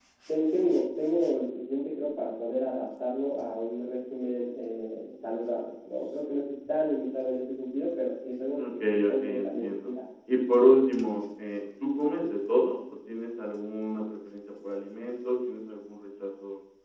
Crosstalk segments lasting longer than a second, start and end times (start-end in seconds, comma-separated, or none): 8.5-9.9